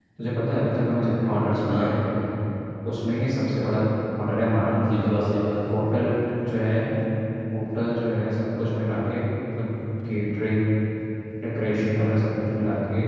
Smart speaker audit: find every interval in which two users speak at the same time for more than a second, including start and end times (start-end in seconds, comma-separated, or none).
none